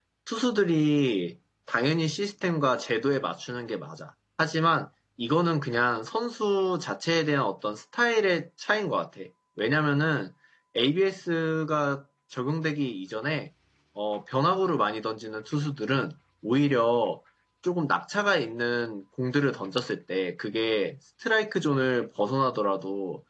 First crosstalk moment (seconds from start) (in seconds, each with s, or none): none